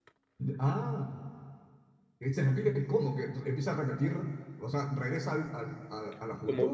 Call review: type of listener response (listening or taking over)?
taking over